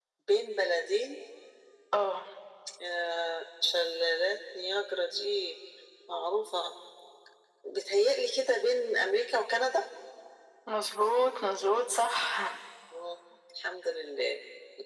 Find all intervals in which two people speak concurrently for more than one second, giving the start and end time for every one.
none

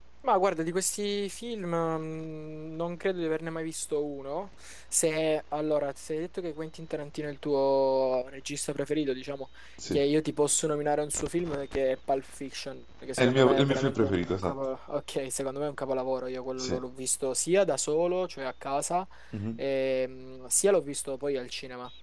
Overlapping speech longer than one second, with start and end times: 13.2-14.5

